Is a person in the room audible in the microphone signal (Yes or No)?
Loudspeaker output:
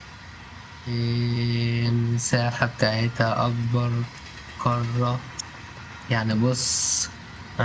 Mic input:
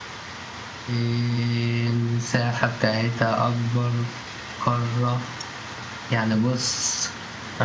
No